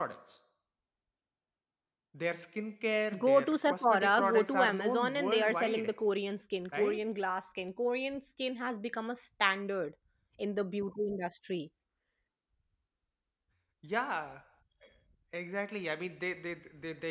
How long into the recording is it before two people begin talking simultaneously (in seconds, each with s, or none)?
3.1 s